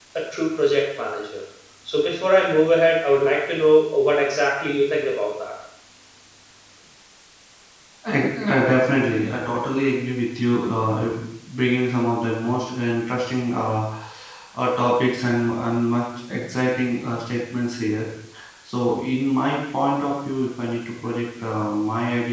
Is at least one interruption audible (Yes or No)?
No